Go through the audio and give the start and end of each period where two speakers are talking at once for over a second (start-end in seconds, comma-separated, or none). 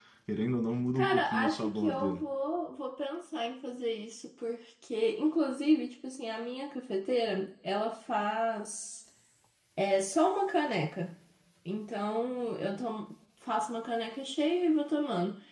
0.9-2.2